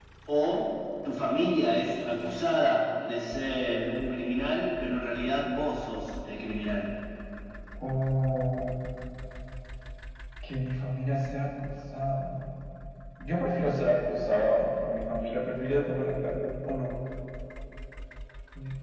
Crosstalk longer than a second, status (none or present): none